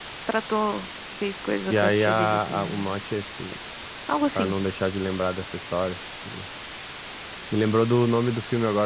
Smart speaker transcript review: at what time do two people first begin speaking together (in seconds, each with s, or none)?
1.7 s